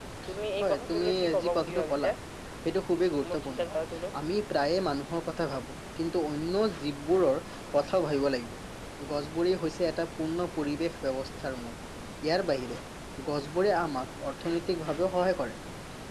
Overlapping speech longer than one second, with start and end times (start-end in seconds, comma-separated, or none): 0.6-2.1